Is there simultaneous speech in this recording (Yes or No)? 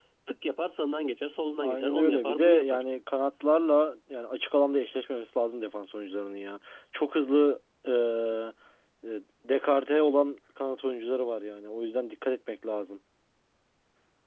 Yes